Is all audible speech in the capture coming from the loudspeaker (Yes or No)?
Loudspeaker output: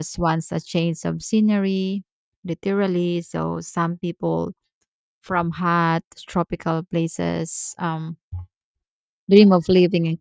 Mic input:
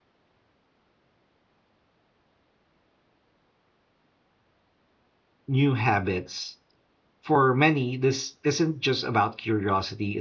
No